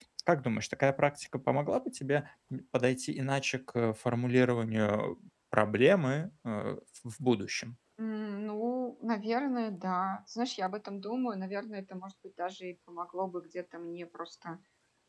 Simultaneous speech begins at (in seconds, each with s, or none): none